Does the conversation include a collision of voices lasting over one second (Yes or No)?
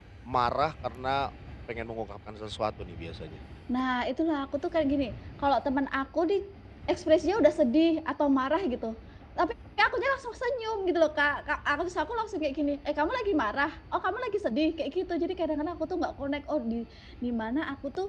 No